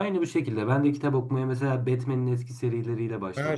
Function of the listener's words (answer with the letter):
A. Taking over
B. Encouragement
A